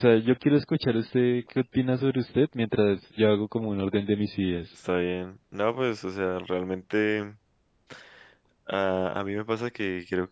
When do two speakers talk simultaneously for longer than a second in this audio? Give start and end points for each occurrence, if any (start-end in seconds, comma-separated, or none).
none